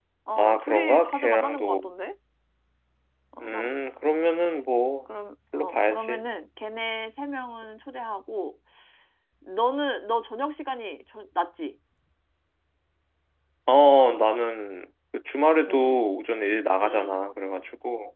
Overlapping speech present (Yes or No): Yes